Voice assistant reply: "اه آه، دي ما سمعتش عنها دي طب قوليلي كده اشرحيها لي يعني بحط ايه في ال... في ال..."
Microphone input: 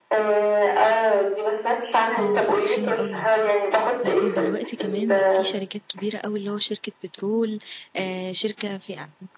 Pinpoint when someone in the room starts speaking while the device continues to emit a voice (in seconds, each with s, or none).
2.2 s